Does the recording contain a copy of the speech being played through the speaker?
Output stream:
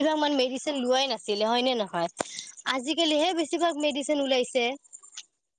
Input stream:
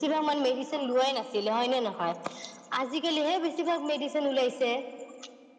Yes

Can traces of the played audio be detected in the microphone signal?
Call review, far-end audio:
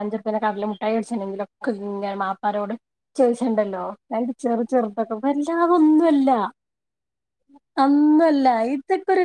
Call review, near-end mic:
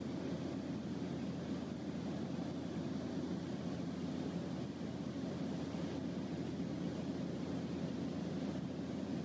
No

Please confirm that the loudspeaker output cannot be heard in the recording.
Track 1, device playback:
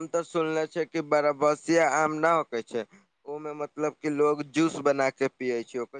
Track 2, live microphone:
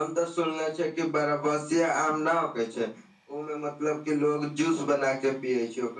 No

